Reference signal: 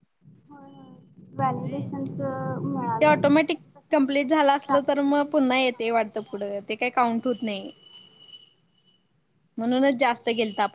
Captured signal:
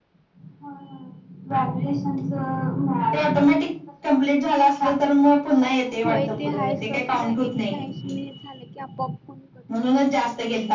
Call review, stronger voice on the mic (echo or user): echo